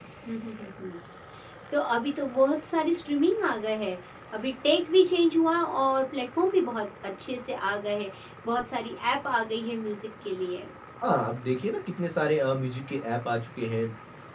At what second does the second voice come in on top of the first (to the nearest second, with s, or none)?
none